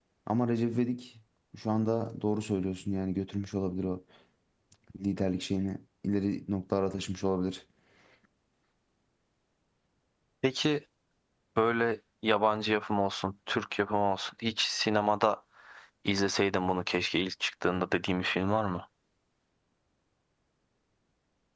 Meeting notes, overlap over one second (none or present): none